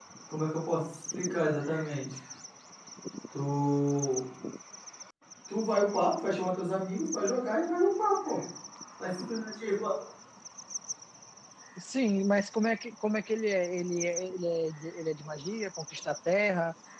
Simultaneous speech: No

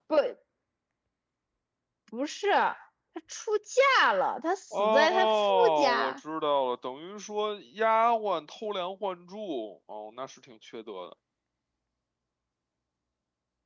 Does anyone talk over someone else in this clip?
Yes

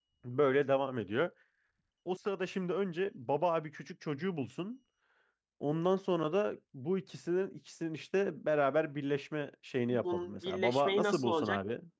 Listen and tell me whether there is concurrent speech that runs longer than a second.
Yes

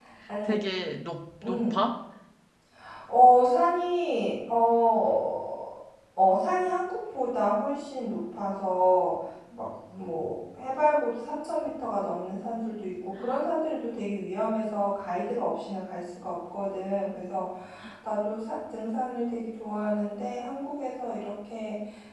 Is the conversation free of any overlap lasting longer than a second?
Yes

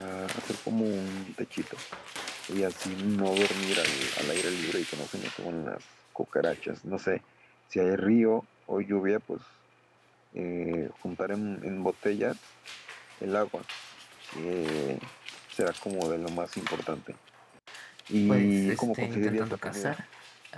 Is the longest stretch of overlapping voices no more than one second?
No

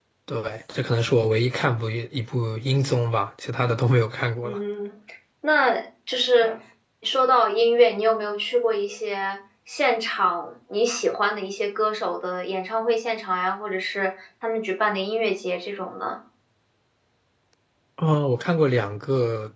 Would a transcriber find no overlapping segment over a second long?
Yes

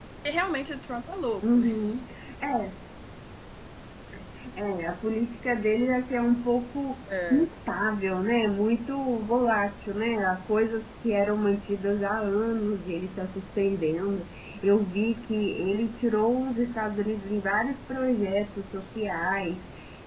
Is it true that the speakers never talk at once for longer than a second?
Yes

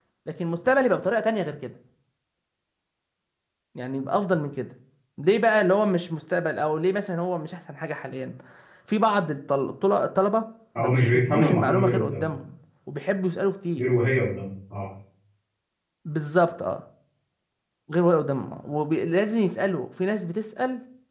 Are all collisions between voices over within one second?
No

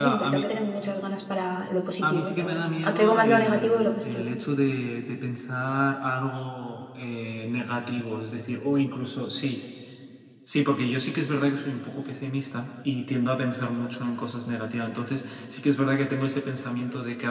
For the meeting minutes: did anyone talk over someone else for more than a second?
Yes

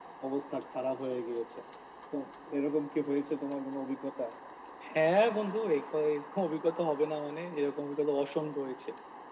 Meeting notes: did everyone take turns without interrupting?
Yes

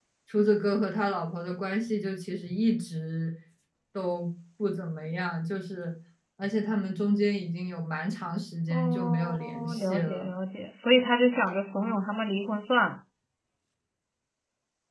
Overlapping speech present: Yes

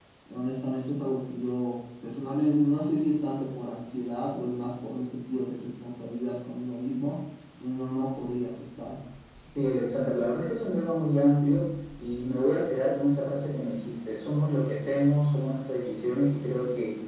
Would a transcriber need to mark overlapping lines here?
No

